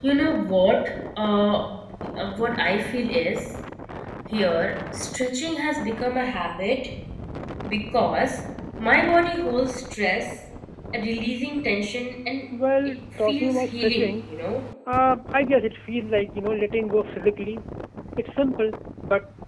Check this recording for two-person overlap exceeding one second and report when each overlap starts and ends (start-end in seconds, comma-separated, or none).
12.8-14.3